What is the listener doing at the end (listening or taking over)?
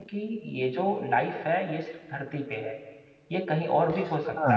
taking over